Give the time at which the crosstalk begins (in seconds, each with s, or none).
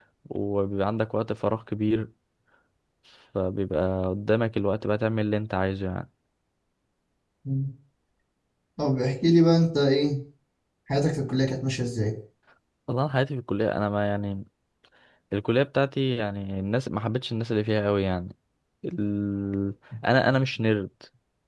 none